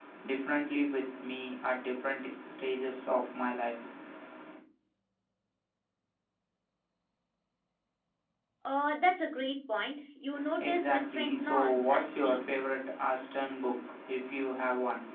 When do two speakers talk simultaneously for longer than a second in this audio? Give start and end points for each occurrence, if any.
10.6-12.7

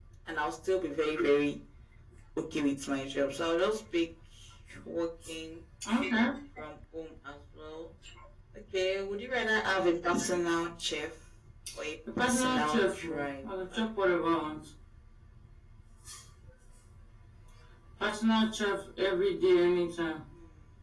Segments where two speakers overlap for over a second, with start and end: 12.2-13.5

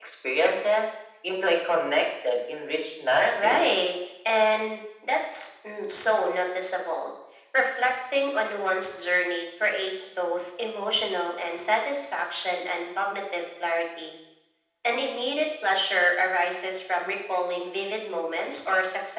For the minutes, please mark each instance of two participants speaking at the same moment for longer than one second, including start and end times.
none

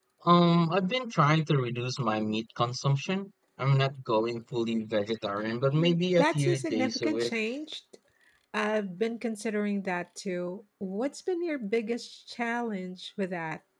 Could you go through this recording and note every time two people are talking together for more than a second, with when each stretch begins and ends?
5.8-7.3

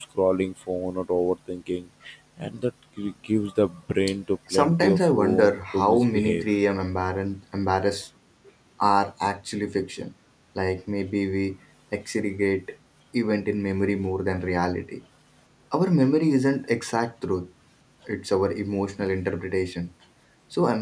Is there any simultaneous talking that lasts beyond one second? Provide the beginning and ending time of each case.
4.5-6.5

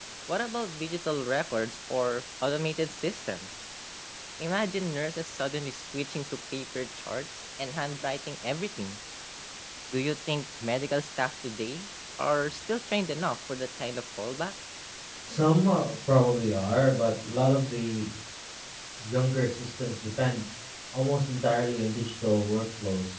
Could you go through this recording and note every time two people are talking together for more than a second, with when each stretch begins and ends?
none

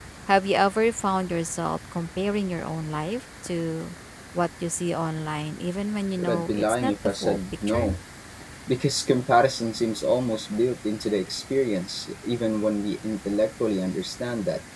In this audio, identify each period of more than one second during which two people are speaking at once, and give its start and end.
6.2-8.0

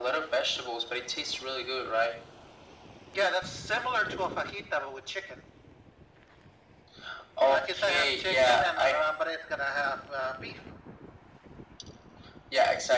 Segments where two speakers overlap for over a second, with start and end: 7.5-9.1

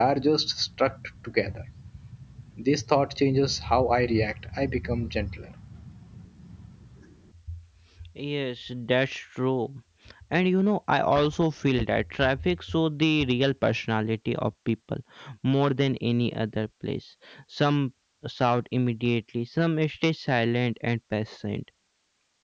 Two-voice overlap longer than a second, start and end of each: none

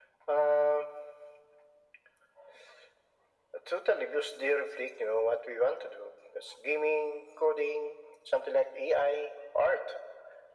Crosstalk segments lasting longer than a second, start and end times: none

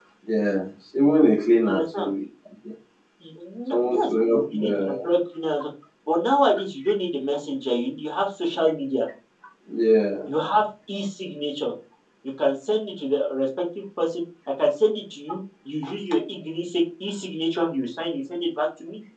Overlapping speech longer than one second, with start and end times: 3.7-5.1

